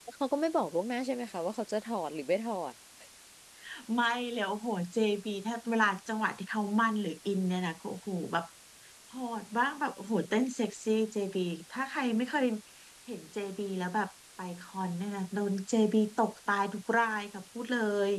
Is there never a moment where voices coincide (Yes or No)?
Yes